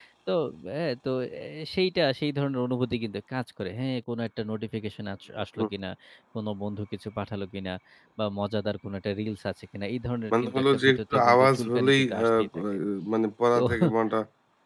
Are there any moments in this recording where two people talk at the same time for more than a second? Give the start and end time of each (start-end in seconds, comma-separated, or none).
10.3-12.6